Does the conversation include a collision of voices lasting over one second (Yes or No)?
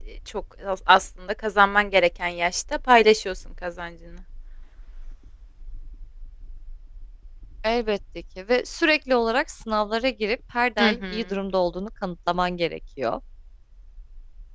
No